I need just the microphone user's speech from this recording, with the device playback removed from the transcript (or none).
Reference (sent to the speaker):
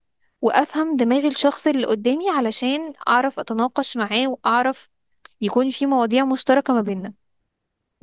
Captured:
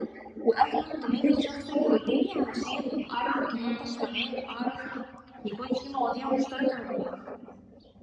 امم